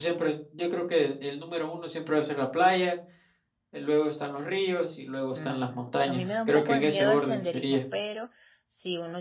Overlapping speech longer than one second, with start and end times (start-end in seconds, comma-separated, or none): 5.3-7.8